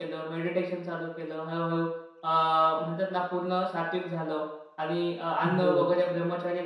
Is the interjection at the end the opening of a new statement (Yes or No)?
No